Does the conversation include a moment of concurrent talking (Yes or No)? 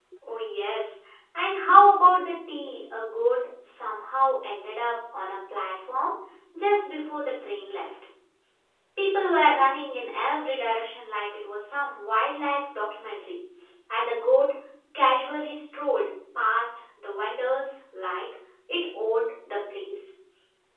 No